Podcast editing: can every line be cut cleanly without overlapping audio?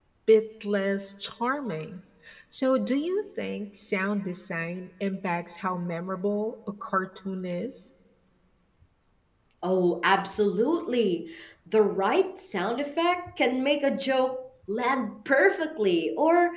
Yes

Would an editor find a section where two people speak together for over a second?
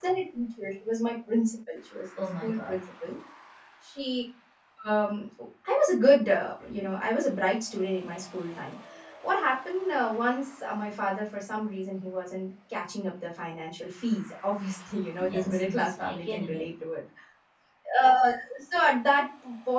Yes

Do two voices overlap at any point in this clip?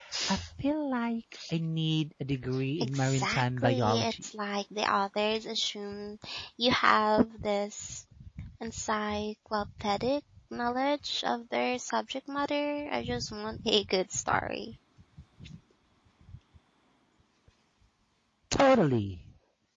Yes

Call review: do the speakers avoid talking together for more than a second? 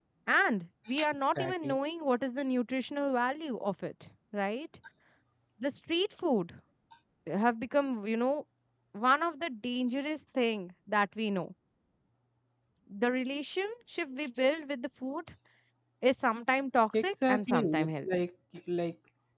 No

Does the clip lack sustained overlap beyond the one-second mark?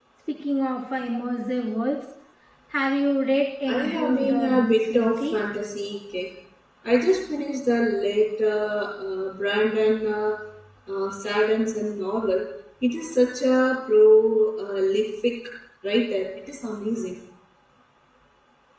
No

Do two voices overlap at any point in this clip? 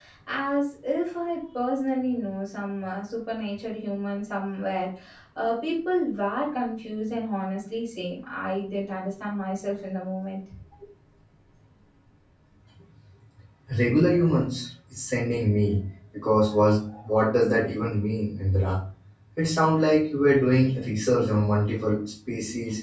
No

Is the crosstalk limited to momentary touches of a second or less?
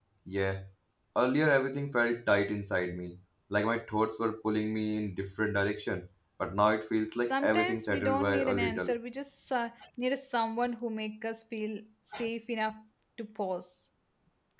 No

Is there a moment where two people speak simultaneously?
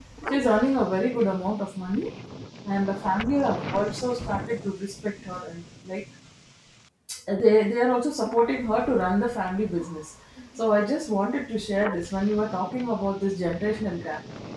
No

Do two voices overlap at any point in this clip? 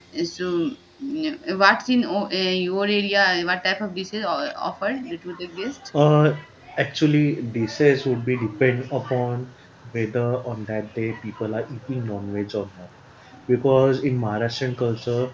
No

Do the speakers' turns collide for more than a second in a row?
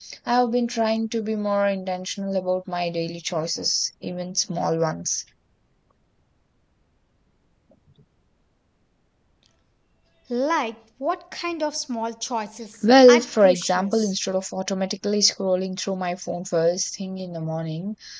Yes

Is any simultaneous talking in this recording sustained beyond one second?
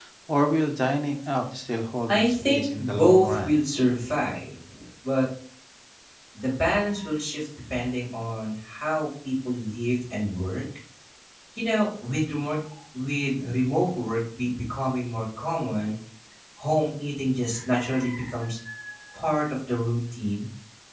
Yes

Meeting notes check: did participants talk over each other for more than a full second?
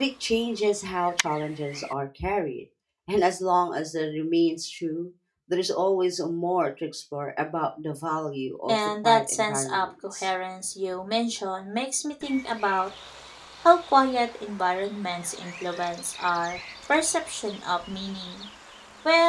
Yes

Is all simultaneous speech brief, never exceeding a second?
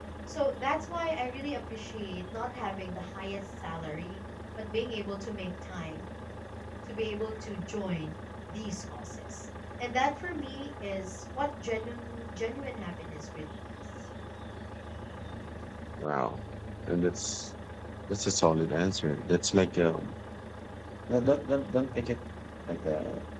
Yes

